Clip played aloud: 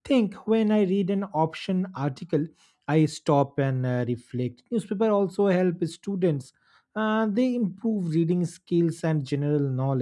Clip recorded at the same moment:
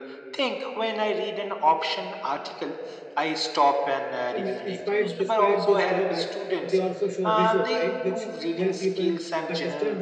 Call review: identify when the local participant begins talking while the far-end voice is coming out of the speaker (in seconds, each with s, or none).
4.3 s